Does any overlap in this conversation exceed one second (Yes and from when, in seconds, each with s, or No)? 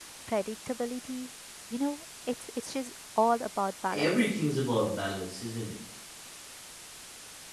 No